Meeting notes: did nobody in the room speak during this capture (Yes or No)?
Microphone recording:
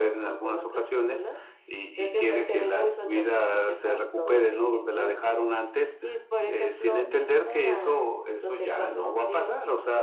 Yes